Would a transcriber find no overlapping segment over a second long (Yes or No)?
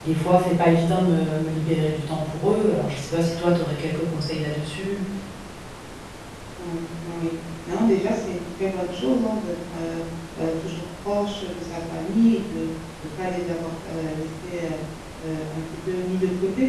Yes